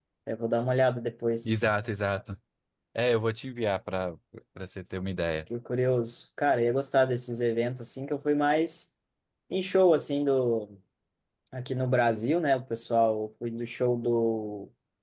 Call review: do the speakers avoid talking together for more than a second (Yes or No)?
Yes